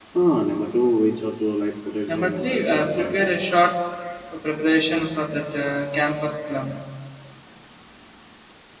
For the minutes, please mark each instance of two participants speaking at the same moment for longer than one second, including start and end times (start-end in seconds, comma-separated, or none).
2.1-3.4